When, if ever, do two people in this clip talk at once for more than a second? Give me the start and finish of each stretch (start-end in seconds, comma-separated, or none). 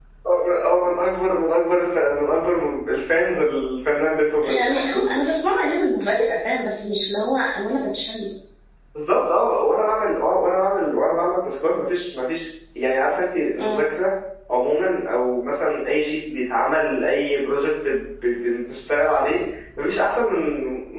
none